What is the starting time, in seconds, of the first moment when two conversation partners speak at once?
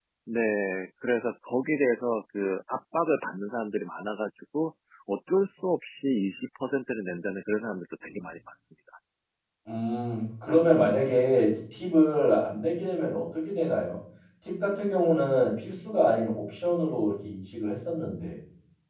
none

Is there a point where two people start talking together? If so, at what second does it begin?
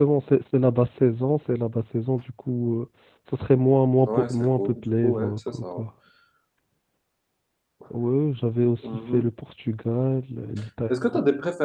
4.1 s

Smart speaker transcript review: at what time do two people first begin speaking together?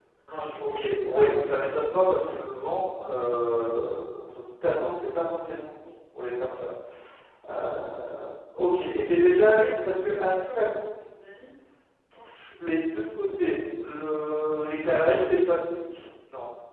0.7 s

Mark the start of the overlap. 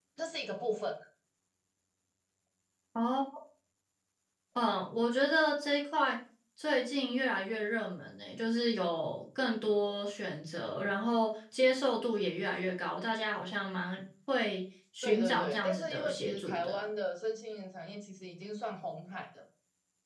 15.0 s

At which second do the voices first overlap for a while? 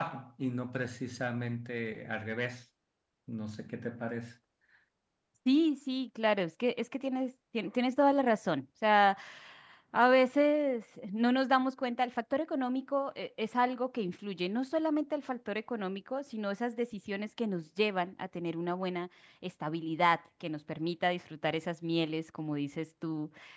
none

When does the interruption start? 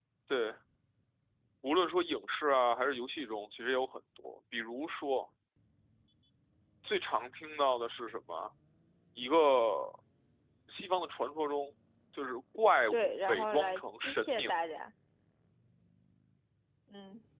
12.9 s

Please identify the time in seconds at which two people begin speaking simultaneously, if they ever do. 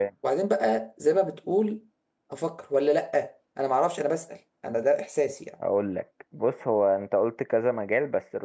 none

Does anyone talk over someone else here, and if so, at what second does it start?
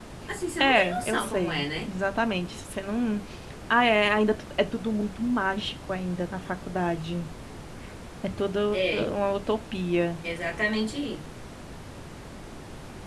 0.6 s

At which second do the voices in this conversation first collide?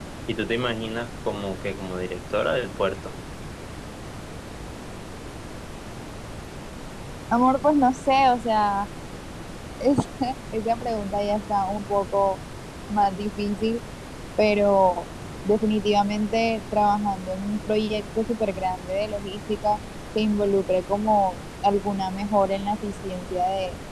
none

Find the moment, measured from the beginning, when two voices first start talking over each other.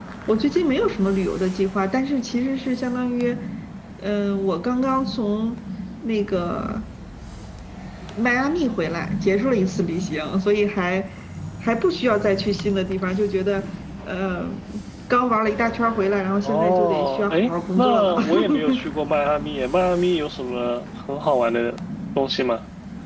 16.4 s

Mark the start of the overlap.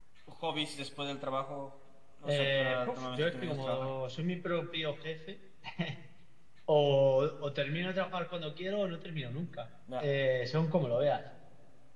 2.2 s

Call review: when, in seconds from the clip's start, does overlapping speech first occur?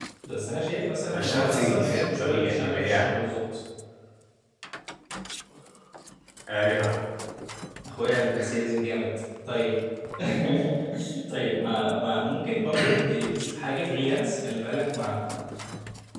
1.1 s

